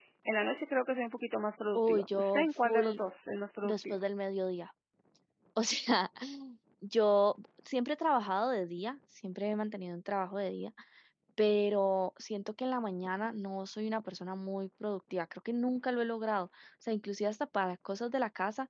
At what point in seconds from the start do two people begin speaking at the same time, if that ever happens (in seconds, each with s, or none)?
1.7 s